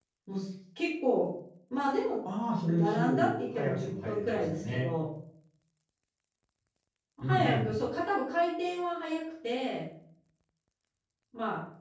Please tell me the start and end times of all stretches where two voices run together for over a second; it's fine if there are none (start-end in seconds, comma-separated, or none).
2.7-4.9